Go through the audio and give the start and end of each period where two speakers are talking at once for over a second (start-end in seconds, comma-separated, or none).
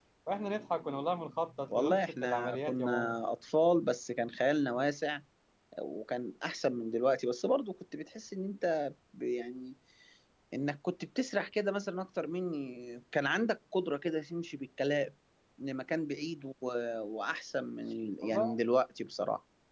1.7-3.2